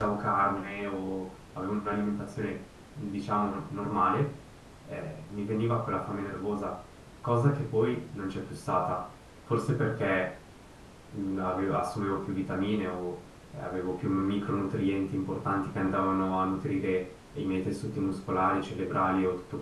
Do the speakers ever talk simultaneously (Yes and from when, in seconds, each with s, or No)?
No